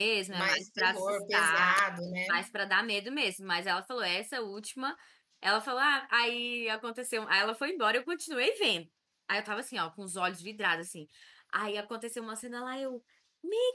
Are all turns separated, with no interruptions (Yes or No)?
No